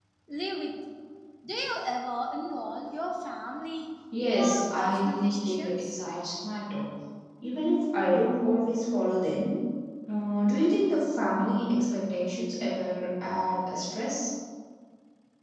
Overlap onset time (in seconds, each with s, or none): 4.1 s